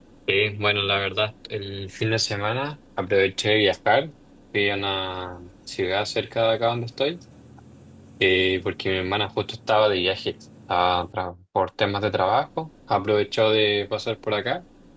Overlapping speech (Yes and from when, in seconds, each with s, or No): No